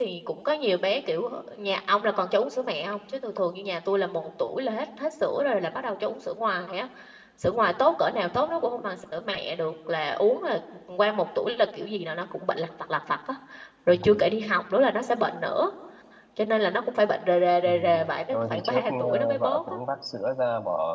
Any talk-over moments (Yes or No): Yes